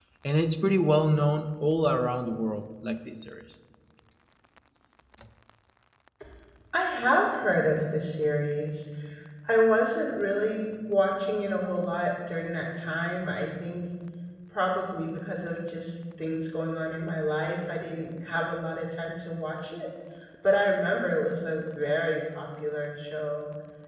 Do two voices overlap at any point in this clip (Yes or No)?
No